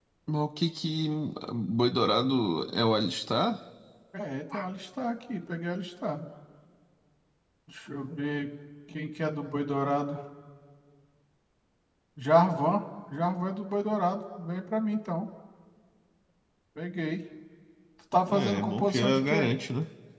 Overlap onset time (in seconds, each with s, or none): 18.3 s